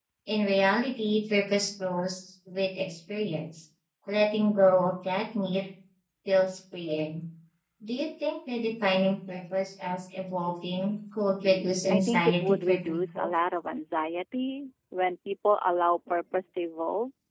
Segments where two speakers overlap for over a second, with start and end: 11.9-13.3

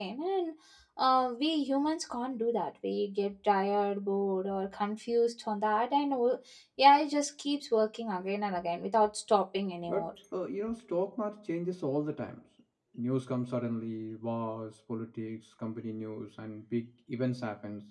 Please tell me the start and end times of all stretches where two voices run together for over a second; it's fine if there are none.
none

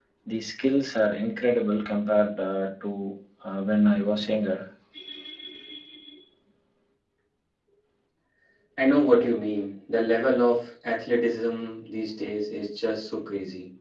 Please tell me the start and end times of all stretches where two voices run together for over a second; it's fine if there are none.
none

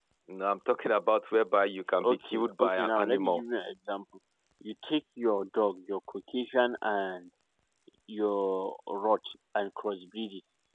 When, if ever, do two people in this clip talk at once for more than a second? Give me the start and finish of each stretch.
2.0-3.4

